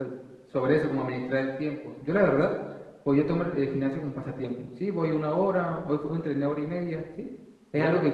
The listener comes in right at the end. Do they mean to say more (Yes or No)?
No